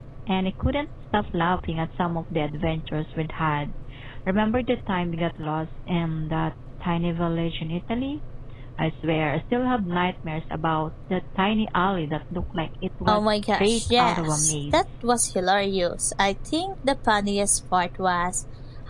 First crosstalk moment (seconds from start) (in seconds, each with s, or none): 13.1 s